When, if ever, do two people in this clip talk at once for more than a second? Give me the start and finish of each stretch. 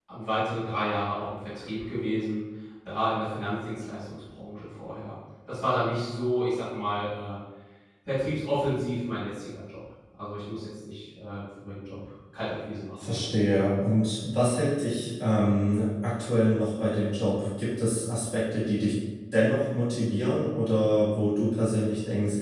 none

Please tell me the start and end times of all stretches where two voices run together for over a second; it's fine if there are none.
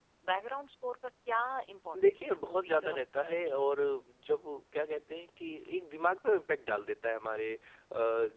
2.0-3.8

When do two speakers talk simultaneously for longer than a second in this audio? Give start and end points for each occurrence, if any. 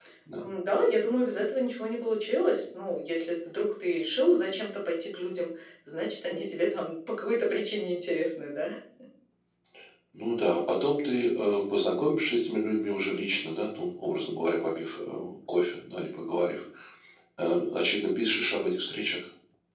none

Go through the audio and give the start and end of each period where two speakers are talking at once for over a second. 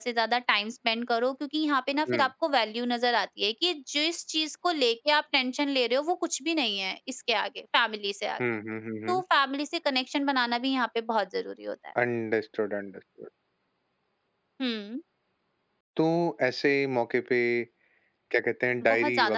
none

